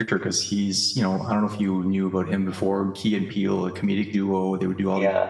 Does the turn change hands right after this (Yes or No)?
No